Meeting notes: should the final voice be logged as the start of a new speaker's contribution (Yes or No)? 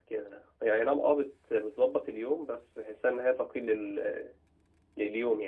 Yes